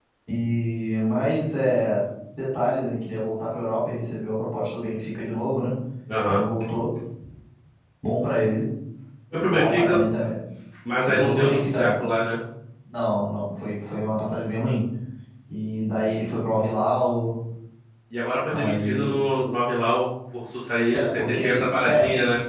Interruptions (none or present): present